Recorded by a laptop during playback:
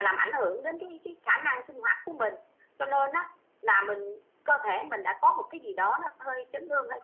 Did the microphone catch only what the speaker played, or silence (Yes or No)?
Yes